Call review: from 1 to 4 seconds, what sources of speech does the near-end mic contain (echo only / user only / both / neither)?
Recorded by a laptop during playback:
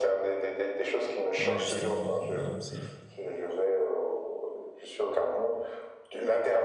both